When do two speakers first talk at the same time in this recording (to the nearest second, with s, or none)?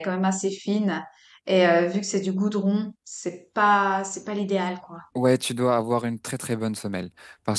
none